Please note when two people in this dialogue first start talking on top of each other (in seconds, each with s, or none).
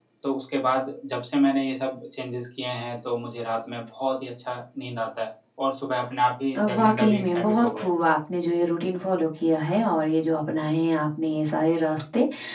6.5 s